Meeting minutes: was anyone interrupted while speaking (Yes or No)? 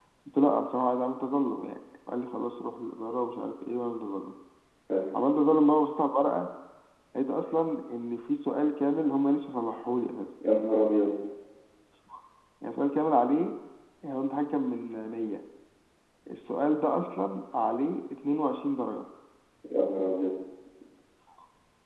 No